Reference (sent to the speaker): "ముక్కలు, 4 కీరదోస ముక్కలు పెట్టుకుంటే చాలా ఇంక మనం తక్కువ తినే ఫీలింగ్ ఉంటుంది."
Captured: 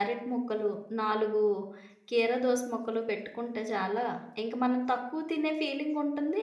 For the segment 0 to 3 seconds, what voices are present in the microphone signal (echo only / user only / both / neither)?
echo only